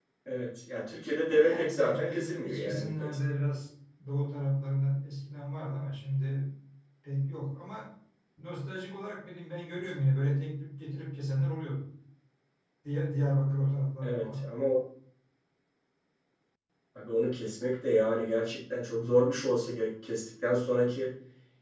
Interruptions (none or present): present